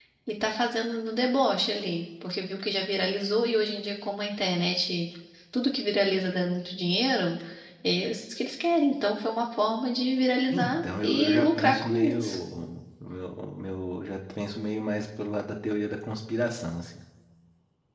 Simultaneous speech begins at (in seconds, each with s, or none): 10.5 s